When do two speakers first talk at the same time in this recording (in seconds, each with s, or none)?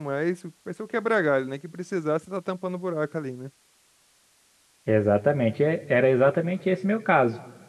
none